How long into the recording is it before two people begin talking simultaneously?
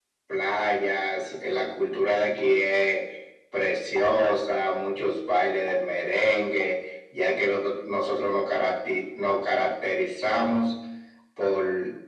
none

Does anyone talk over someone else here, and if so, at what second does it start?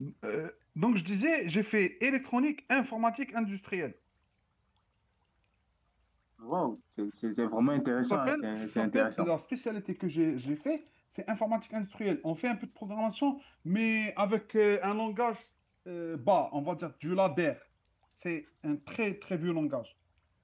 8.1 s

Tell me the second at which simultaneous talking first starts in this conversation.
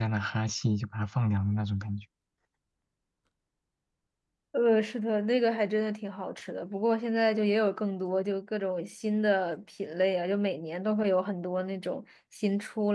none

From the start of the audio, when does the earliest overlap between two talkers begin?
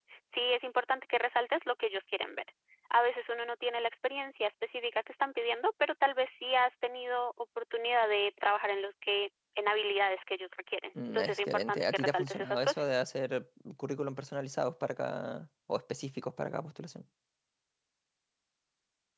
10.9 s

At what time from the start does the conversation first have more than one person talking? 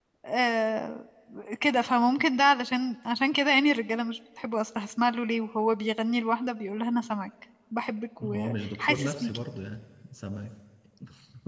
8.2 s

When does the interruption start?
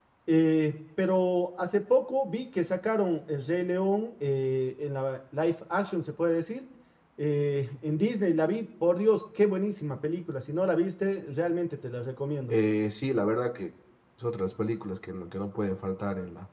none

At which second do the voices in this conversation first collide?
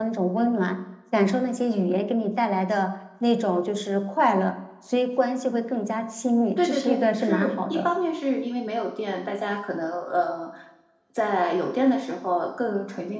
6.6 s

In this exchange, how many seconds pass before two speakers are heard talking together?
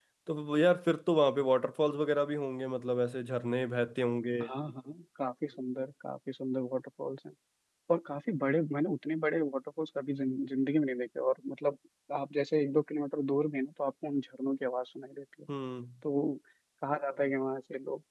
none

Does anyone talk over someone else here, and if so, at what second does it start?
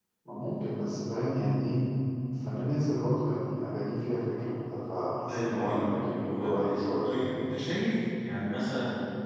5.3 s

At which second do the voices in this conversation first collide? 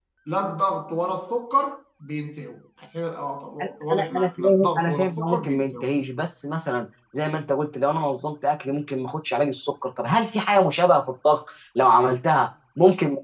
3.6 s

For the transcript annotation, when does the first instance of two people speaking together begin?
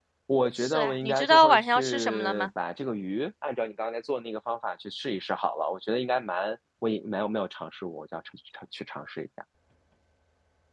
0.6 s

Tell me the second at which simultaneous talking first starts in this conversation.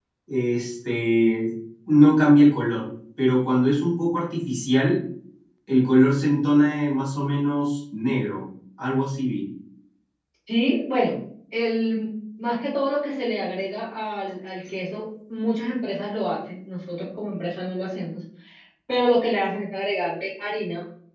none

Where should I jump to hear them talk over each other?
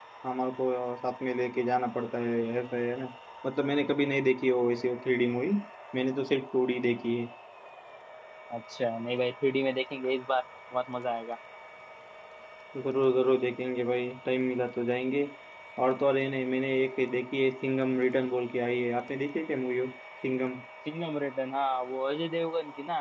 none

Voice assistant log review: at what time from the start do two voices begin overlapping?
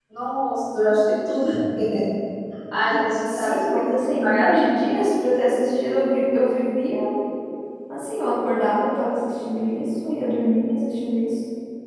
3.5 s

